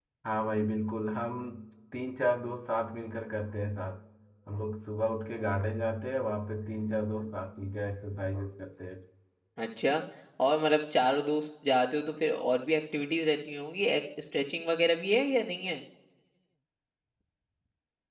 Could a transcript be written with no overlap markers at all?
Yes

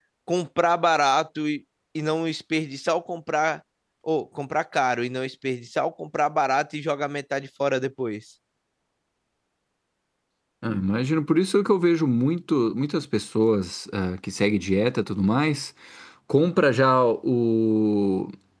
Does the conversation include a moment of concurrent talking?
No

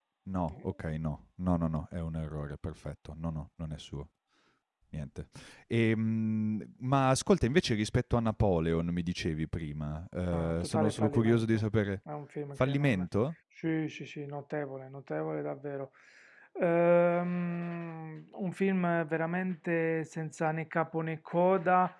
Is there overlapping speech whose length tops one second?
Yes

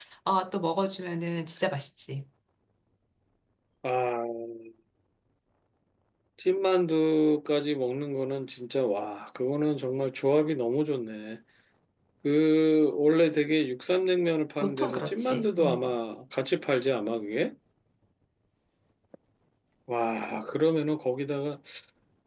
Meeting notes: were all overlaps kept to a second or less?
No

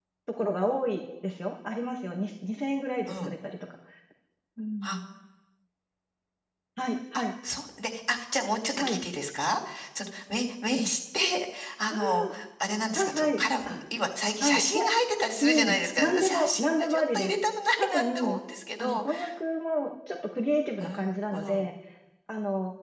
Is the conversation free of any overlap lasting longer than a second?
No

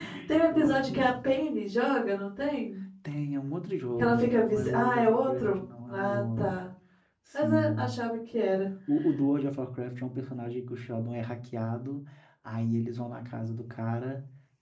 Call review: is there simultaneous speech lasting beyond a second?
Yes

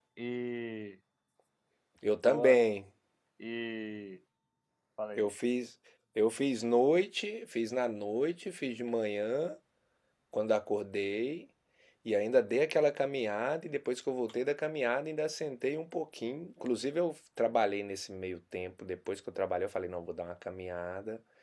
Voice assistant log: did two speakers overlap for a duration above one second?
No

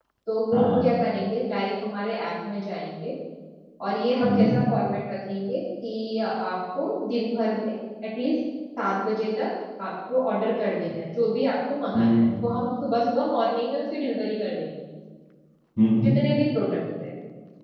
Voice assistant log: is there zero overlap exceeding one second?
Yes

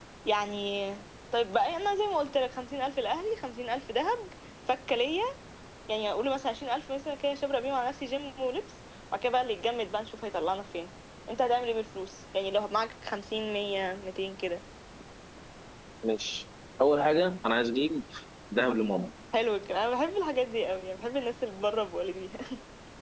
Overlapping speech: No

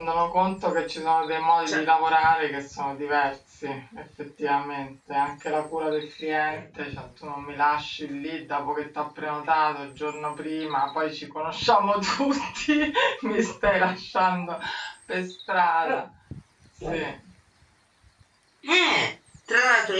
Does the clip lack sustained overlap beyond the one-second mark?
Yes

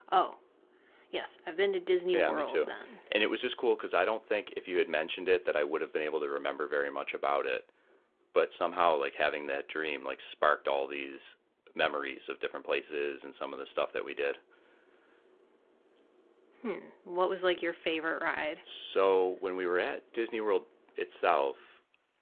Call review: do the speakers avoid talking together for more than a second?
Yes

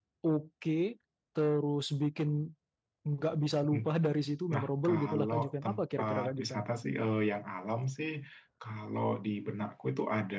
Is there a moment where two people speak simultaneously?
Yes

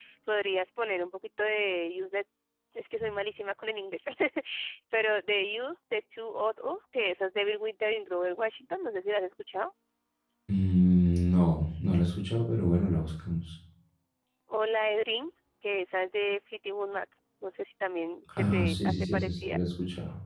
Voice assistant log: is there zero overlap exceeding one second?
No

